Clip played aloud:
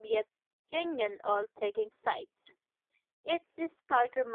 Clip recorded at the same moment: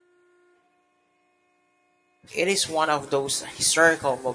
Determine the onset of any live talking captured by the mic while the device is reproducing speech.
2 s

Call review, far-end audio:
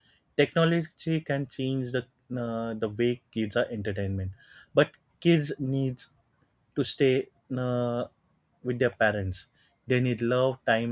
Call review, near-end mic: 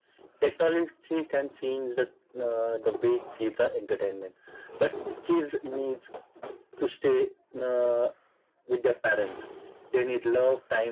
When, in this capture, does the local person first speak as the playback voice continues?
none

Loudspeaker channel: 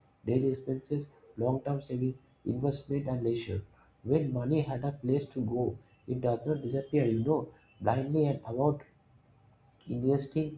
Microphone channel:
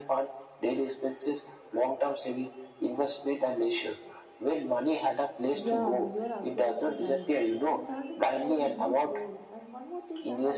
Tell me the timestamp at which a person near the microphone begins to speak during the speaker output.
6 s

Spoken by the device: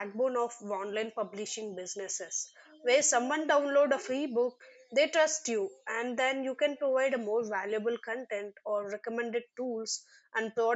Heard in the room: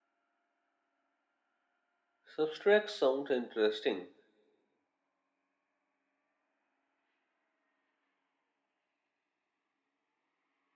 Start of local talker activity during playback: 2 s

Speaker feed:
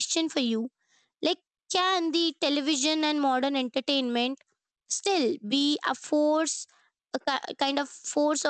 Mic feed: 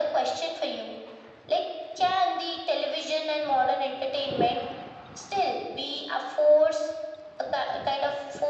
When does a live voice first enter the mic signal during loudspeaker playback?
none

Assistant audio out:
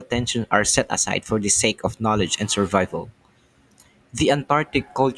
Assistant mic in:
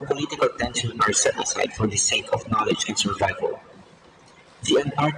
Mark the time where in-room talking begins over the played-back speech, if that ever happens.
none

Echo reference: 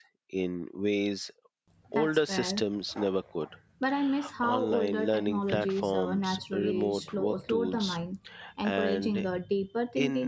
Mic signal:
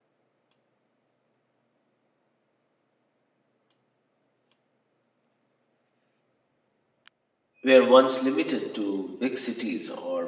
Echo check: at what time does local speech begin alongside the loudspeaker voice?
8 s

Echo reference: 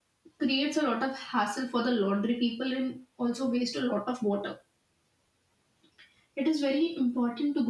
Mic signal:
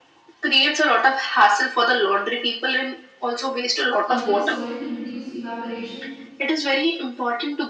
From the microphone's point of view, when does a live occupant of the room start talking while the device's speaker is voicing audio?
4 s

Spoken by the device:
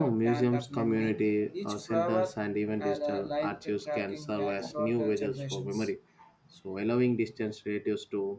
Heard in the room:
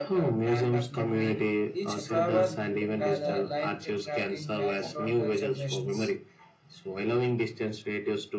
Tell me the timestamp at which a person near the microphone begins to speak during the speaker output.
2 s

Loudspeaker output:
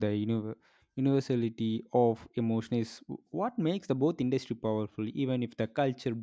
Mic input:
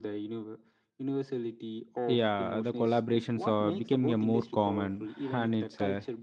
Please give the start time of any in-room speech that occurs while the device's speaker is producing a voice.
2 s

